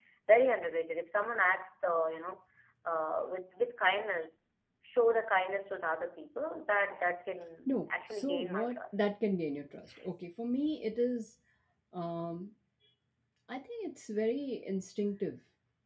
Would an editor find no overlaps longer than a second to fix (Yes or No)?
No